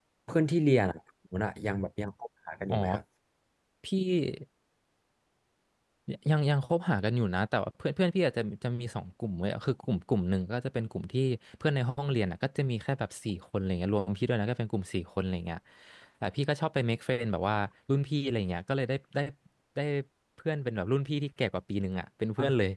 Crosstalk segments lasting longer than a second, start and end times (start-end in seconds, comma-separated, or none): none